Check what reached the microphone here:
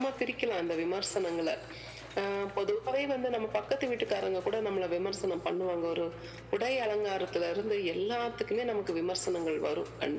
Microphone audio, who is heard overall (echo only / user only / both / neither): echo only